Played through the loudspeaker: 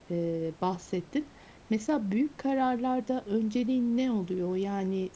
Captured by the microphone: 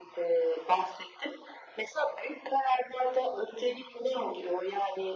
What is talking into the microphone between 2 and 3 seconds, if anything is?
echo only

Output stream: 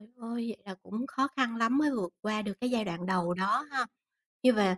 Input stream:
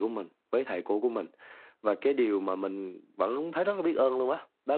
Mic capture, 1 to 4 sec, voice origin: user only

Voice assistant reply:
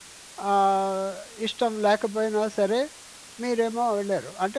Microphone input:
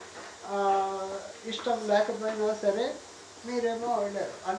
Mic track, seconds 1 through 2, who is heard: echo only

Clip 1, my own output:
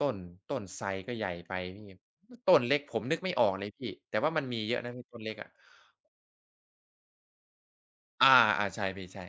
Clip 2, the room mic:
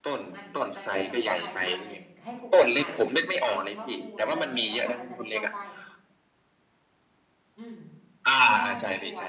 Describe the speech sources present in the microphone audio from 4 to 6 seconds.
both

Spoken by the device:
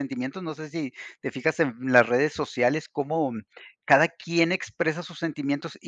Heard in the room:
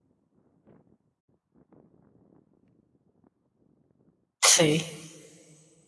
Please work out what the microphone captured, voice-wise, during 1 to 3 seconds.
neither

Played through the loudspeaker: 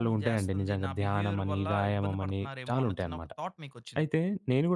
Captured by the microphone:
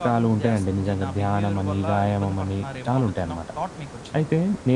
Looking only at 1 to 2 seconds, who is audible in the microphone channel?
echo only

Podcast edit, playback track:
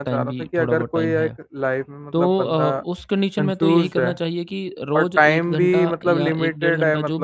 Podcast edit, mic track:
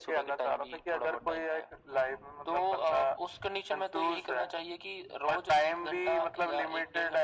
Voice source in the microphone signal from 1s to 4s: echo only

